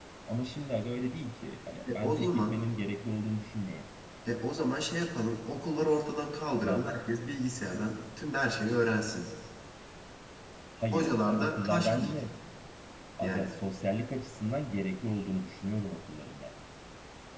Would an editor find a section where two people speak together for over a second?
Yes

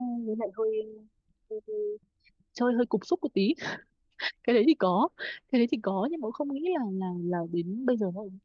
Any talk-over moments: No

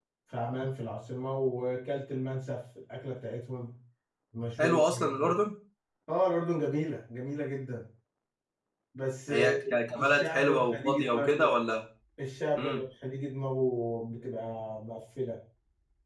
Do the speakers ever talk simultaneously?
Yes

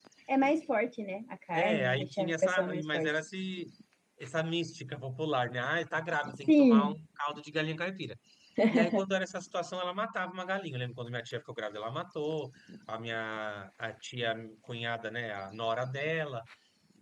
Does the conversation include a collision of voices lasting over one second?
Yes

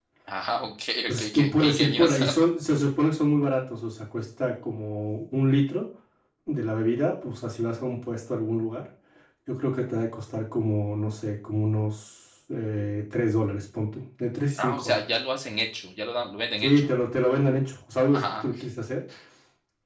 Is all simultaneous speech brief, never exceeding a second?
No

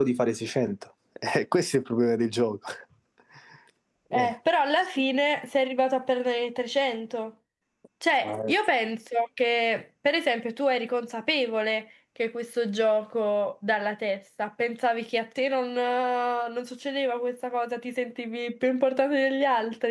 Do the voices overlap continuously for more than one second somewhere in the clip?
No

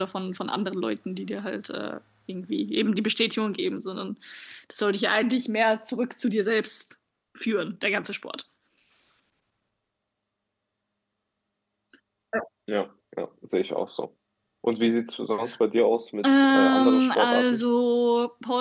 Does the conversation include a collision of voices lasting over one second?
Yes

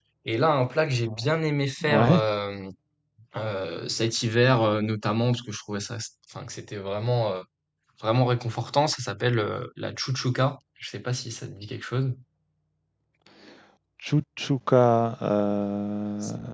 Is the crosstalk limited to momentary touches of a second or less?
Yes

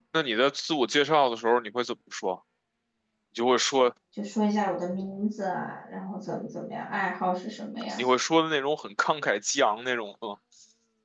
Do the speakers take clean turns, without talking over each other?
Yes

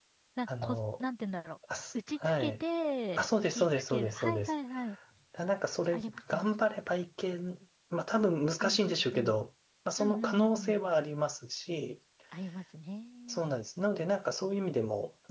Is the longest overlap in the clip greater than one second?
Yes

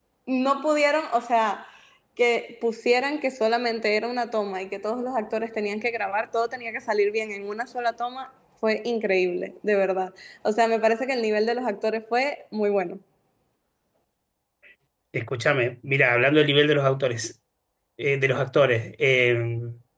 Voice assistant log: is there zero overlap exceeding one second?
Yes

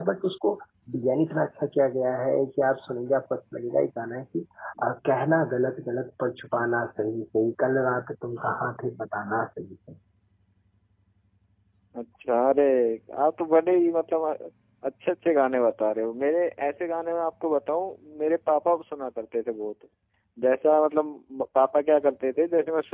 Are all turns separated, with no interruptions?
Yes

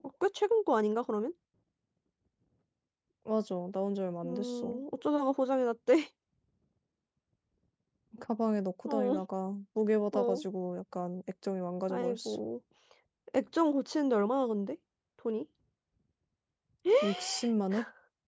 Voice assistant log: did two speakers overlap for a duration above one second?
No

